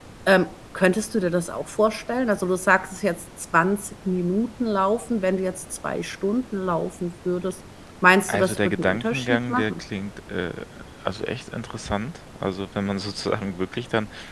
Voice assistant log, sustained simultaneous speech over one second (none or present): present